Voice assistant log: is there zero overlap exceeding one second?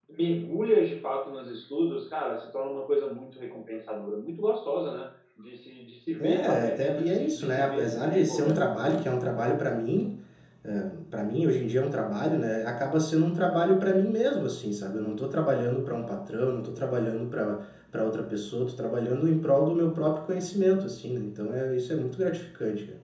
No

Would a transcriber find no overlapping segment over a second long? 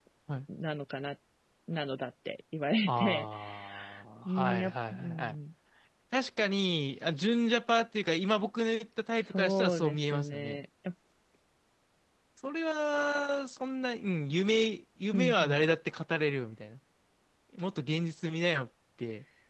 No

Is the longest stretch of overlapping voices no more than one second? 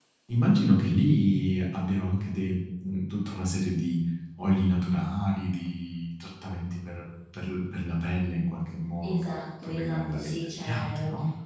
No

